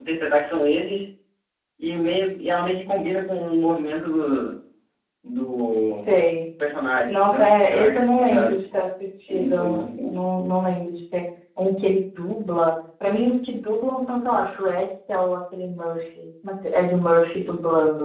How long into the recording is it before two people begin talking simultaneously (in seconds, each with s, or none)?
7.1 s